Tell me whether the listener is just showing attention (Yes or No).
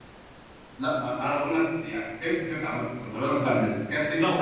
No